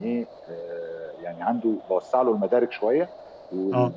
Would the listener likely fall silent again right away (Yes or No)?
Yes